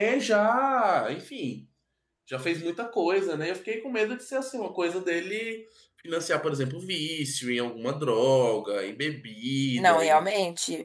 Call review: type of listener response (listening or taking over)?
taking over